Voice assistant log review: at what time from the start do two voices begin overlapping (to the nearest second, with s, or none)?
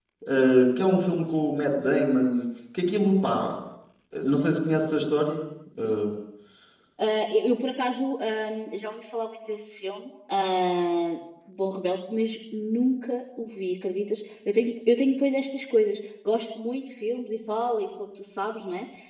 none